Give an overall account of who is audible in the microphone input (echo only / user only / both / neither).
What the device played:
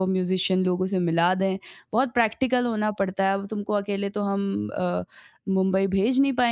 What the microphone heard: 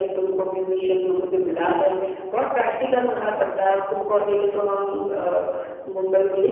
echo only